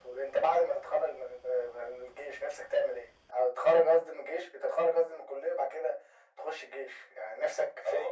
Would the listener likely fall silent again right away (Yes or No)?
No